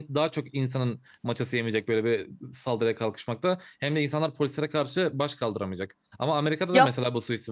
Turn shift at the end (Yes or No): No